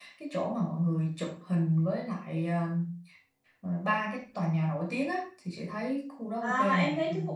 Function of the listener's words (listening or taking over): taking over